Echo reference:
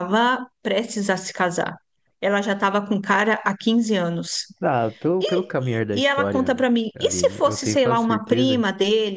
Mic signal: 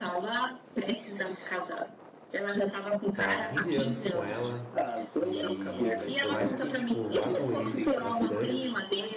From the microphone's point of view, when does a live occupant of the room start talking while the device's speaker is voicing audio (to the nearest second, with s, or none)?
3 s